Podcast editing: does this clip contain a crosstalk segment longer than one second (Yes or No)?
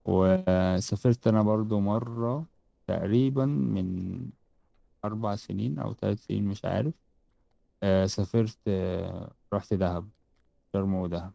No